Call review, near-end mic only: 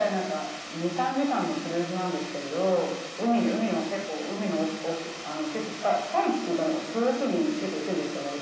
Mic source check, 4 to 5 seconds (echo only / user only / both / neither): echo only